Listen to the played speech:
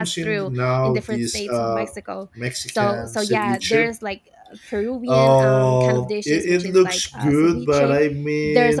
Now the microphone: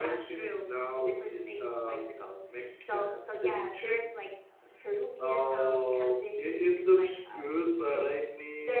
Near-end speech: none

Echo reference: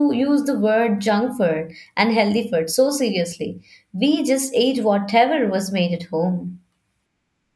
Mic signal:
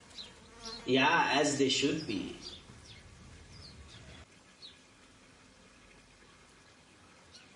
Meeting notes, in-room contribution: present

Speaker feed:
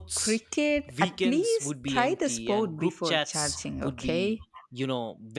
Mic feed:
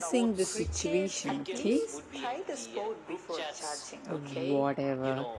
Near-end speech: present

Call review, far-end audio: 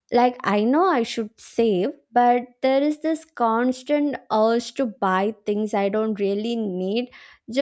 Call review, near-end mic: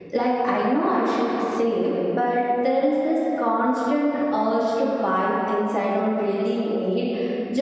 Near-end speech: none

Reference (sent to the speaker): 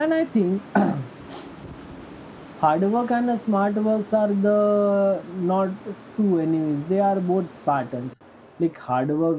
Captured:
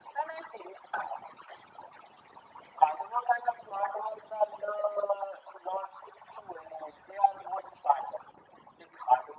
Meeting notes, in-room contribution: none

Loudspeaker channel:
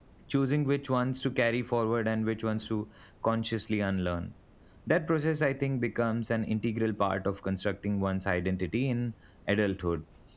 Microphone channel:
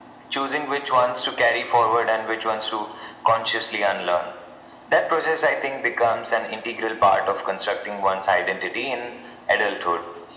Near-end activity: none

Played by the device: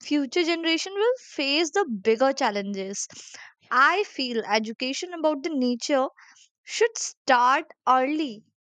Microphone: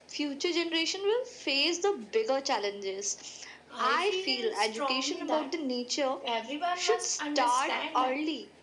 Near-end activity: present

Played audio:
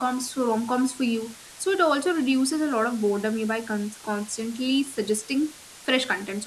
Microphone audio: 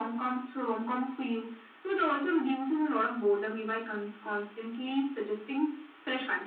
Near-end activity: none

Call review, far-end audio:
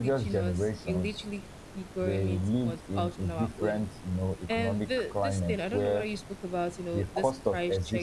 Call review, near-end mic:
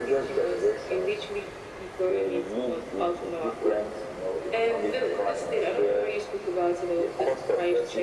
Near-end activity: none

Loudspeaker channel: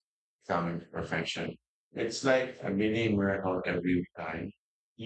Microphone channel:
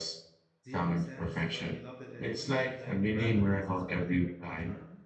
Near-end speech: present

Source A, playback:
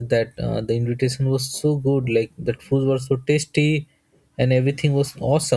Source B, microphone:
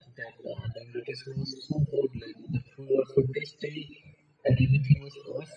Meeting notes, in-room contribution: none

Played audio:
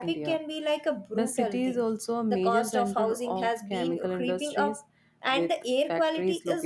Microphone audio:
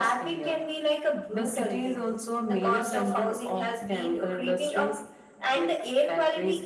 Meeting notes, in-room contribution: none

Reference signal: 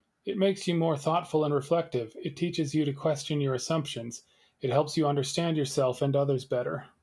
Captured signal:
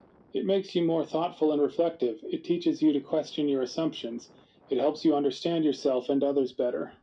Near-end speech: none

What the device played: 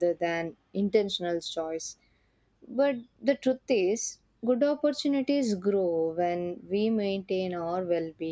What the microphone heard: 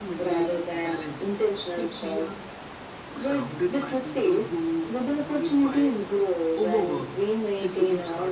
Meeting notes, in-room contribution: present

